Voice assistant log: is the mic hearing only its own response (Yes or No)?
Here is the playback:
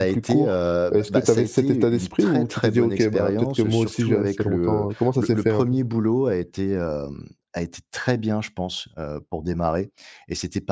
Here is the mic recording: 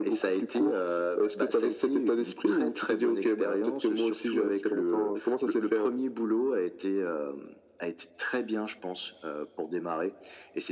Yes